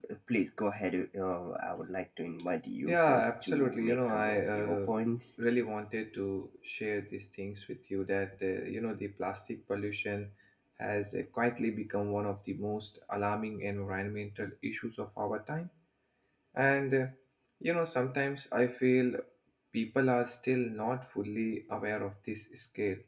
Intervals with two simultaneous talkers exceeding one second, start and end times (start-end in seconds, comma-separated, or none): 2.9-4.8